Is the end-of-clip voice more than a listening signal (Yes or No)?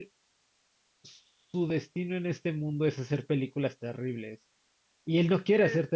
No